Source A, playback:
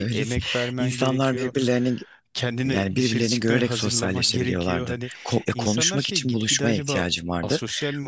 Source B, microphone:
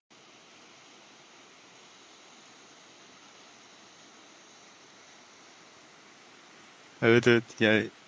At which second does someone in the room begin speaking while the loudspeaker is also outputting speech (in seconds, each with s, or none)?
7.0 s